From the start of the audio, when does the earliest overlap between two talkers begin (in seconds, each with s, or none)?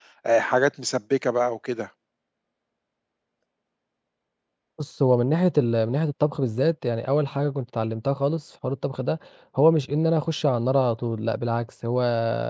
none